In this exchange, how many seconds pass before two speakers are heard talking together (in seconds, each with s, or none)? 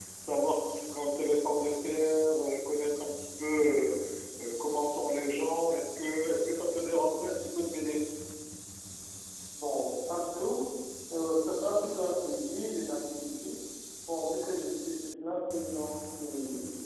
none